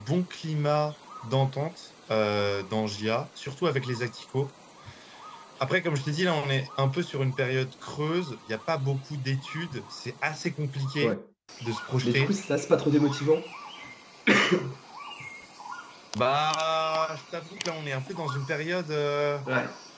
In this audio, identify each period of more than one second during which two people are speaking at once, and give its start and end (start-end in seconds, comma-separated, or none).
none